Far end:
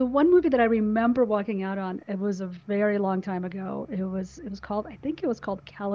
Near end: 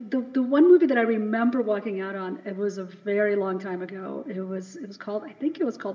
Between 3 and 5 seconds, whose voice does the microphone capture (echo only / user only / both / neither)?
echo only